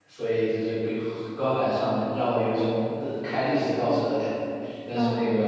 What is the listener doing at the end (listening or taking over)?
listening